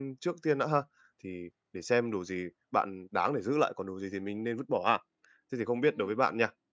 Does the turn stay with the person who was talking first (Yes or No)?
Yes